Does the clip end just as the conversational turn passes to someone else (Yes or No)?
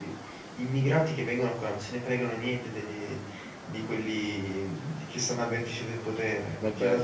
Yes